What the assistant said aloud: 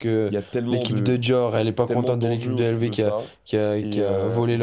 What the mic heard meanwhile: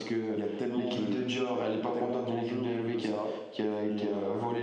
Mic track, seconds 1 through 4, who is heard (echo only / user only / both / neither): echo only